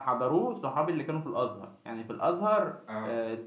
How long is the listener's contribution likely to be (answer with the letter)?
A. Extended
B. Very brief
B